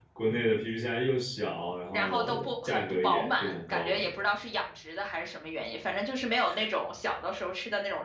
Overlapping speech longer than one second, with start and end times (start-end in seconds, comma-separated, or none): 1.9-4.0